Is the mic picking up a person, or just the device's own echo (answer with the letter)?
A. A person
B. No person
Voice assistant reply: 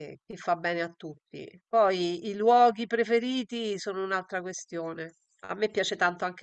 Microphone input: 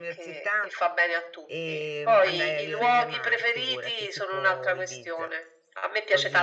A